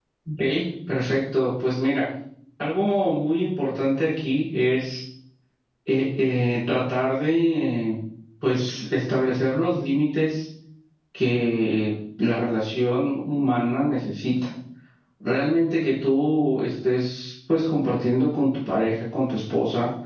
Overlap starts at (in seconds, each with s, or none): none